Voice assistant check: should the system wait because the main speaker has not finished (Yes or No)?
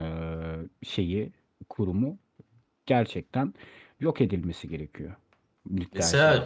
No